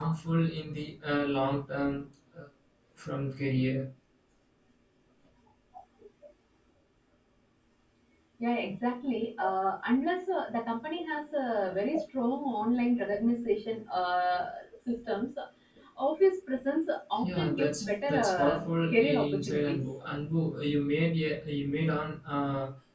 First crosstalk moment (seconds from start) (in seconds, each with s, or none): 17.2 s